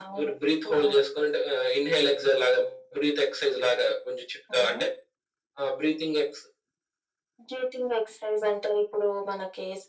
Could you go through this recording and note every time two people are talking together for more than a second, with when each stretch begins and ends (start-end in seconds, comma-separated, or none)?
none